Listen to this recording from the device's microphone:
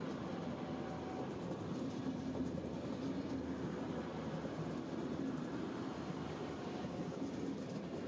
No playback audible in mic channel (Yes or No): Yes